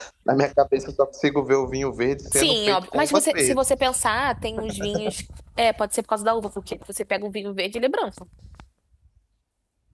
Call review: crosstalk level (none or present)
present